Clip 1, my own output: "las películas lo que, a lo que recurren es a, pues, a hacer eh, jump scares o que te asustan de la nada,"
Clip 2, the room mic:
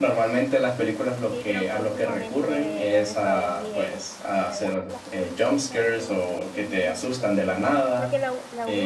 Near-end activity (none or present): present